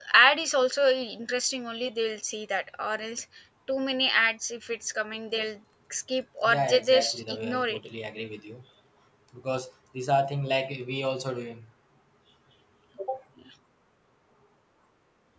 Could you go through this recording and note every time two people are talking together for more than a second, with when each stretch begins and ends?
6.5-7.8

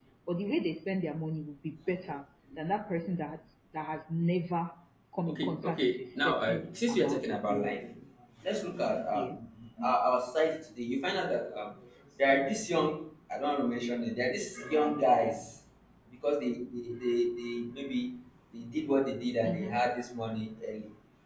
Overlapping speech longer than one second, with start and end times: 5.3-7.7

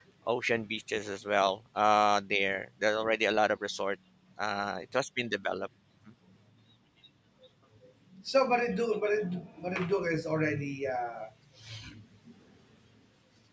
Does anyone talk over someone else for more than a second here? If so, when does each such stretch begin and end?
none

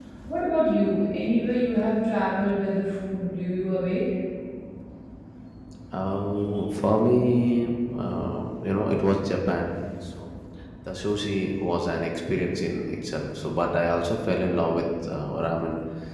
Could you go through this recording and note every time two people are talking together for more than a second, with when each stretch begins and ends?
none

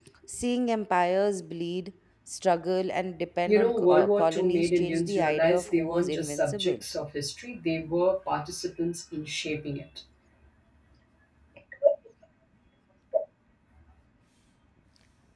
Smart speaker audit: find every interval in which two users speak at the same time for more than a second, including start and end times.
3.5-6.8

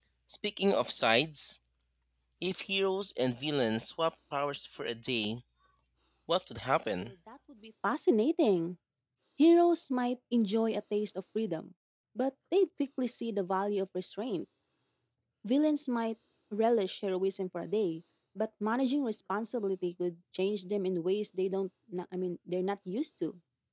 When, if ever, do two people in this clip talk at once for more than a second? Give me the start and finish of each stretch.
none

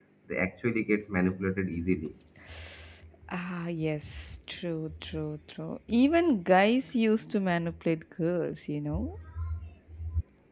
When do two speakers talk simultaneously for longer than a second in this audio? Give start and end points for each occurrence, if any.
none

